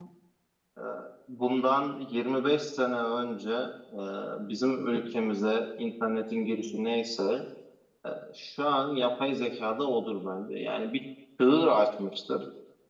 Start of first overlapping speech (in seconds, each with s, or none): none